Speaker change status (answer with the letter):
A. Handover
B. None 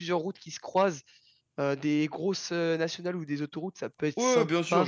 A